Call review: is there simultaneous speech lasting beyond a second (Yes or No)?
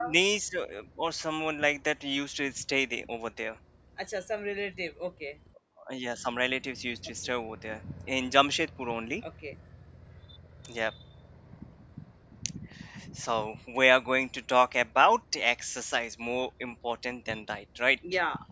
No